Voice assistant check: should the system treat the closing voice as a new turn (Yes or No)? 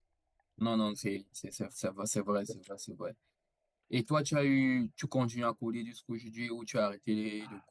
Yes